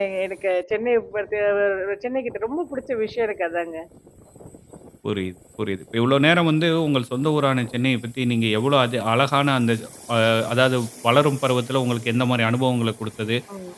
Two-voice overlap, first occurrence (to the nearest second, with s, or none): none